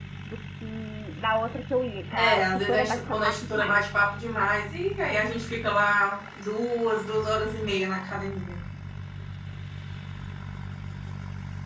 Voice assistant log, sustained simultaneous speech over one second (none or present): present